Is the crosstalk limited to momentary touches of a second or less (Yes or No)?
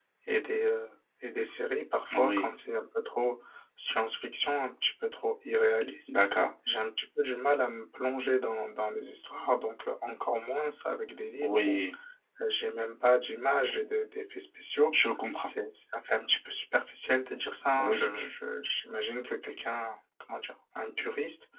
Yes